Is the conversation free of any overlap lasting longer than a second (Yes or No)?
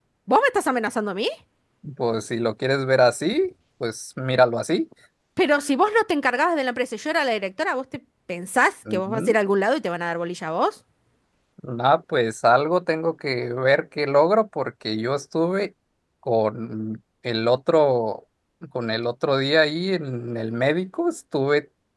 Yes